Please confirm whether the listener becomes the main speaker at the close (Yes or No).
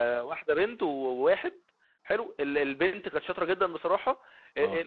No